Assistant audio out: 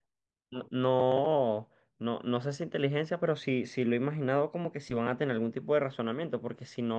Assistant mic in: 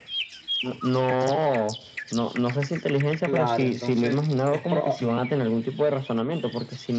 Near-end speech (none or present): present